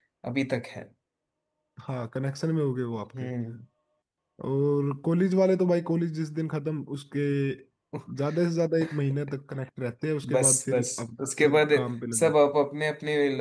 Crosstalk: present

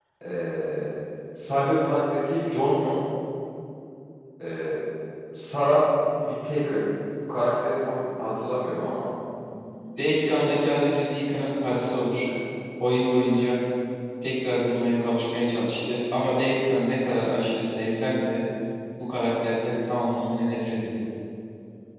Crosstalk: none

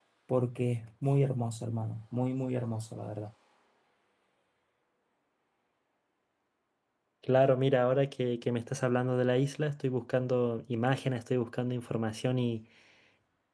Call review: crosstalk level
none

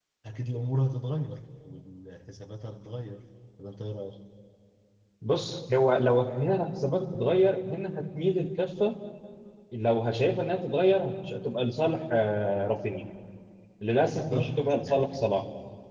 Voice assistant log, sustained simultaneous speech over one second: present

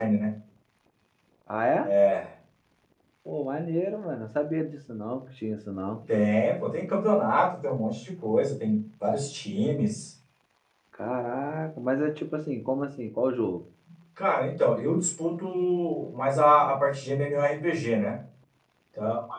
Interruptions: none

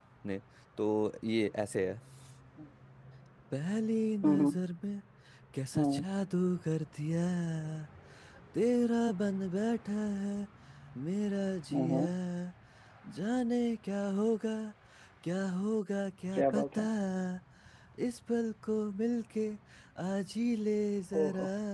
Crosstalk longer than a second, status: none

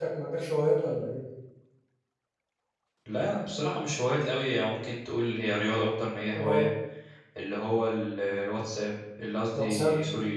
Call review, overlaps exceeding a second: none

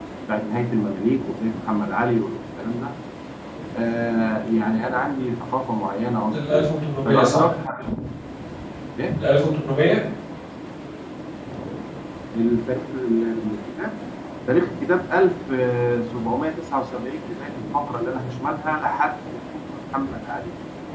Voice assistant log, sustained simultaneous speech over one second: none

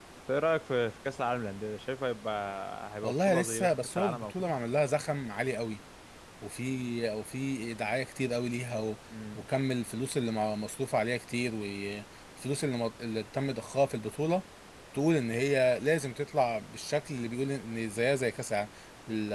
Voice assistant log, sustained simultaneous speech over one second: present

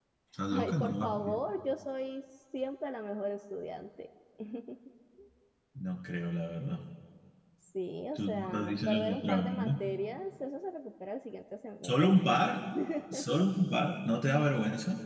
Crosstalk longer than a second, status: present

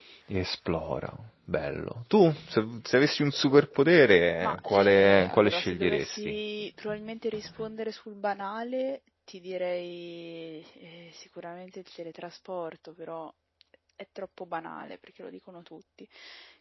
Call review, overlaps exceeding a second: present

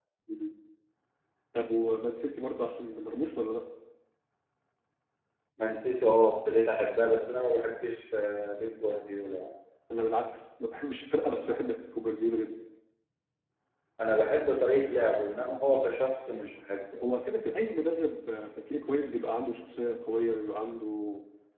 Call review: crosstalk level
none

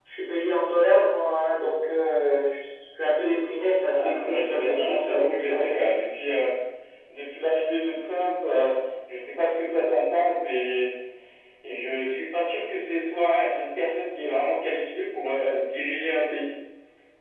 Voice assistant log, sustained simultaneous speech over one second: present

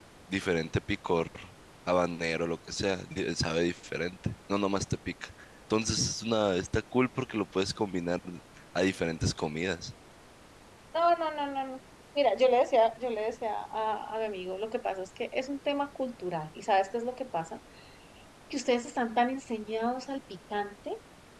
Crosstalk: none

